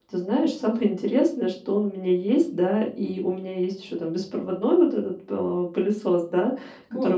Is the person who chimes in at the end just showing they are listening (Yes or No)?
Yes